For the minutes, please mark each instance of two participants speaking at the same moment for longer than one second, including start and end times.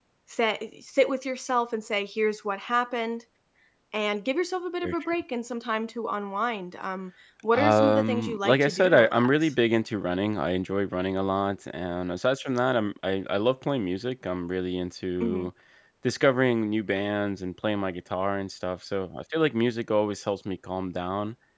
7.5-9.5

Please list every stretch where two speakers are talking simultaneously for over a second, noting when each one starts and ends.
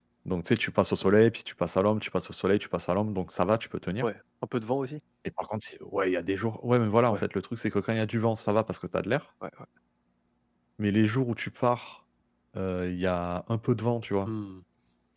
none

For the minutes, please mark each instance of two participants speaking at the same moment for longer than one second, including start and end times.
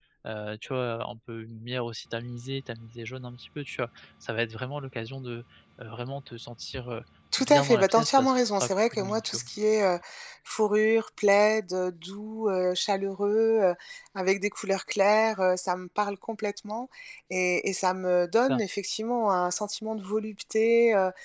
7.4-9.4

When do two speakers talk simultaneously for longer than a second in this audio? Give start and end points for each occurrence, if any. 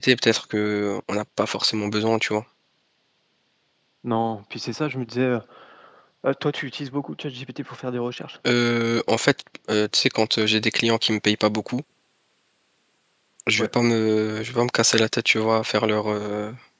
none

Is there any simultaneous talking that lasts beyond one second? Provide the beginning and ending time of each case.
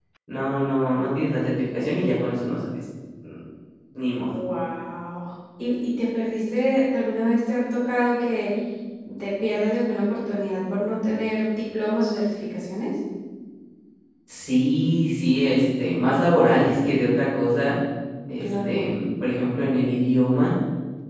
none

